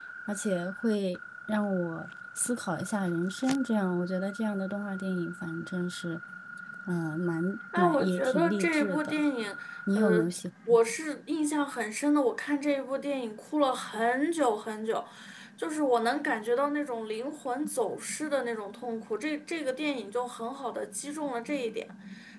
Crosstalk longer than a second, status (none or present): present